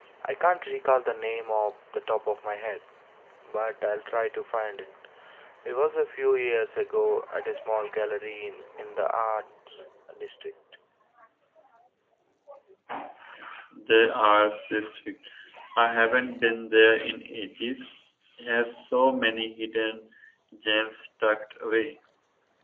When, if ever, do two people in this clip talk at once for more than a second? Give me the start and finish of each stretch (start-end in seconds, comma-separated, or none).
none